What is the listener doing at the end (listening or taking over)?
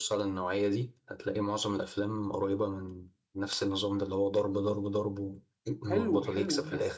taking over